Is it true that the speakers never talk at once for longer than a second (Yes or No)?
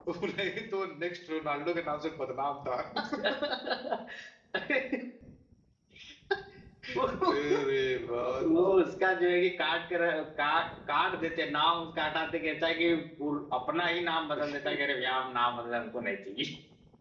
Yes